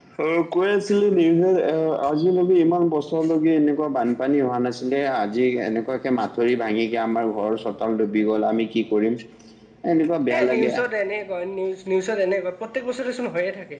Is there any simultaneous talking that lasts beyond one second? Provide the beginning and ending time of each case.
none

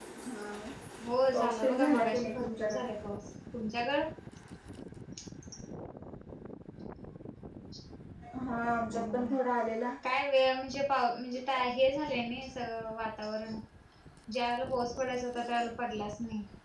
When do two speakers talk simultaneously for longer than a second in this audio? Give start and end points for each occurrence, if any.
1.3-2.8

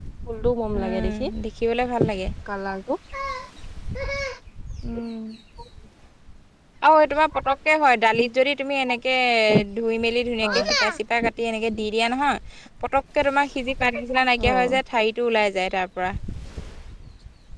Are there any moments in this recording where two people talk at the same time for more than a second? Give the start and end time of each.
none

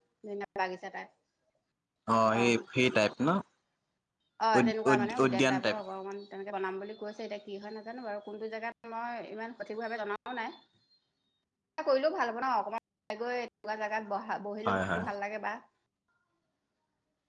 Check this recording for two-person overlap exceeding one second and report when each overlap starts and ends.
4.5-5.8

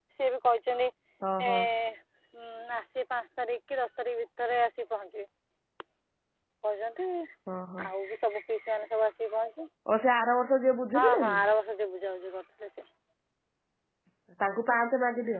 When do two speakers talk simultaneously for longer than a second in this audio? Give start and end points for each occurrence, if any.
none

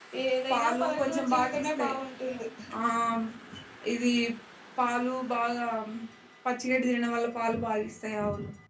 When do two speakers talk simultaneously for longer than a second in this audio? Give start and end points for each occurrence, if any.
0.5-1.9

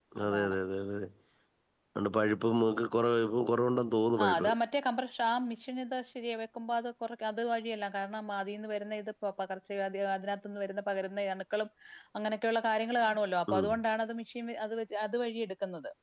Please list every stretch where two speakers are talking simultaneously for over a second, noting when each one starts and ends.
none

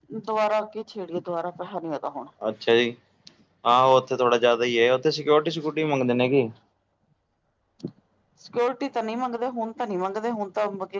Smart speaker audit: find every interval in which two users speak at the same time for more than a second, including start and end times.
none

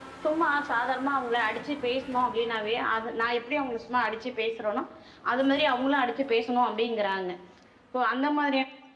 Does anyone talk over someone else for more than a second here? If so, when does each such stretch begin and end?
none

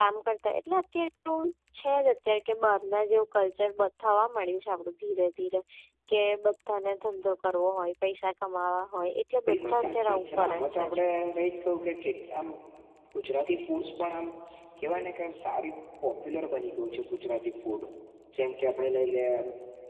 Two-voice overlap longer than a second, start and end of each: 9.5-11.0

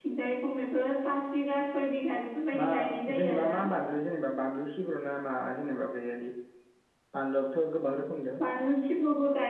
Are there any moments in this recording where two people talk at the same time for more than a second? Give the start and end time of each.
none

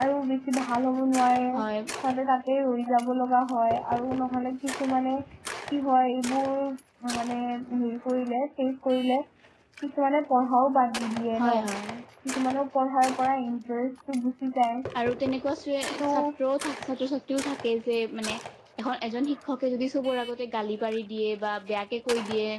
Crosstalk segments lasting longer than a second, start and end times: none

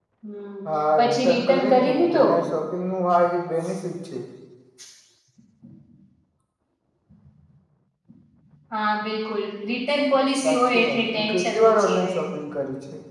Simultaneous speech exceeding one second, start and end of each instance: 1.0-2.3, 10.4-12.2

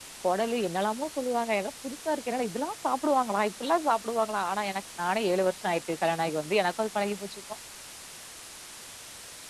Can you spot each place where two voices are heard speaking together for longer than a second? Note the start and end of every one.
none

